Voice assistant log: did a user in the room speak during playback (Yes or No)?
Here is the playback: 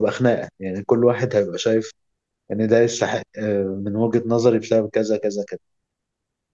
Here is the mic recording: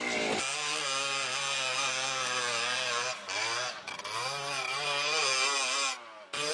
No